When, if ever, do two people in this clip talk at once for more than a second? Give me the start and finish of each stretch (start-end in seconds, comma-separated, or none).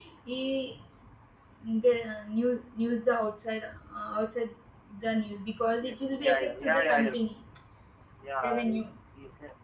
5.8-7.3